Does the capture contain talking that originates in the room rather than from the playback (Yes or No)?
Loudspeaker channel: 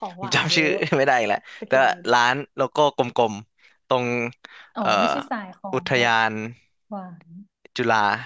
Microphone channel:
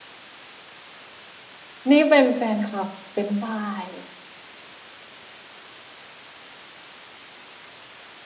Yes